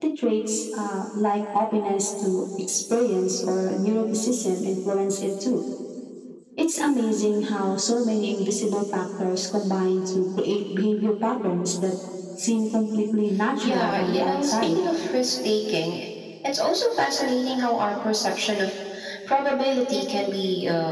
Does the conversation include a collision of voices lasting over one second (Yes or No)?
Yes